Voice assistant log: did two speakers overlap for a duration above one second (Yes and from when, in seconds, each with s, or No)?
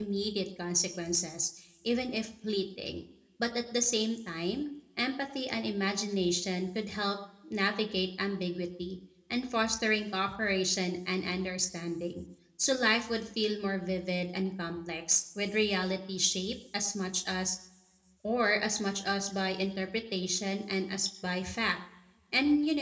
No